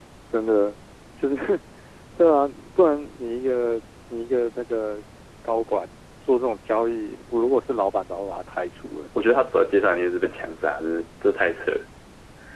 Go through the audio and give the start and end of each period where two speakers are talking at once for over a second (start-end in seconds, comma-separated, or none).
none